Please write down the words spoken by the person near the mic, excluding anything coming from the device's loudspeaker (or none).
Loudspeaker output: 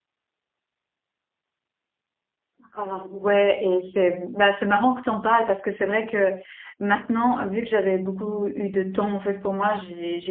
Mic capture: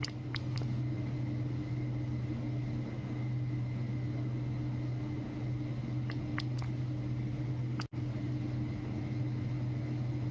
none